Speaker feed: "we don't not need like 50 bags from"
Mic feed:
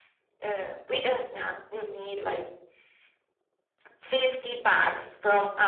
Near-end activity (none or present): none